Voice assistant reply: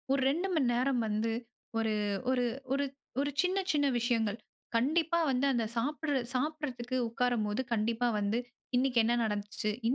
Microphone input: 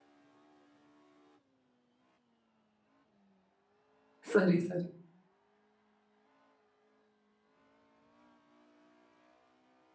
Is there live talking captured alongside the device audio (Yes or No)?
Yes